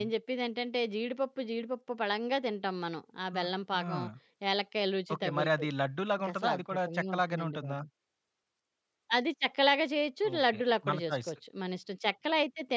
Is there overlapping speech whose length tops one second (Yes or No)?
Yes